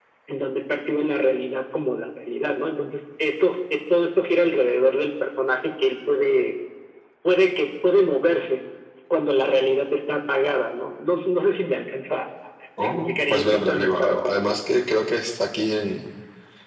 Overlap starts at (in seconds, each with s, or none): 12.8 s